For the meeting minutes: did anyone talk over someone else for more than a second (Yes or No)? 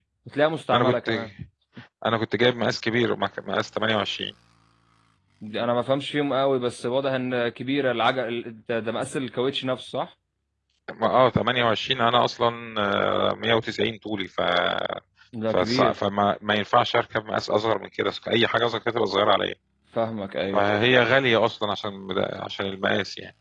No